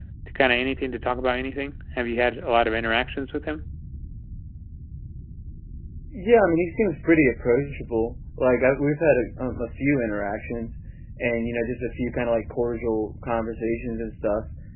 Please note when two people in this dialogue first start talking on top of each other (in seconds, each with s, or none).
none